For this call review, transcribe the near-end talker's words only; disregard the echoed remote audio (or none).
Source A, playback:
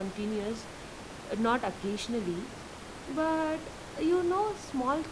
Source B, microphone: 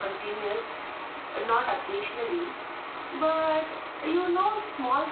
none